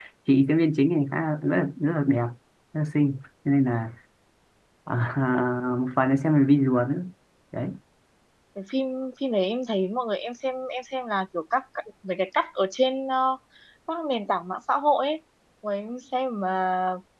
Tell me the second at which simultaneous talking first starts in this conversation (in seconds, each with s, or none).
none